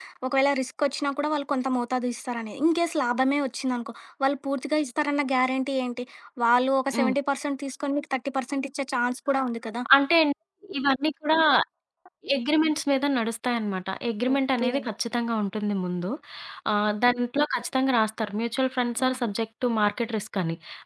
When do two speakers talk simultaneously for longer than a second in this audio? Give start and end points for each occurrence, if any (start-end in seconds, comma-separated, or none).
none